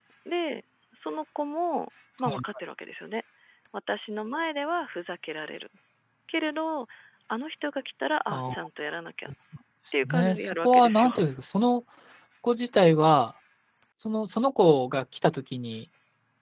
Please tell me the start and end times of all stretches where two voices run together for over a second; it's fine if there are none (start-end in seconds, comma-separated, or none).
9.9-11.2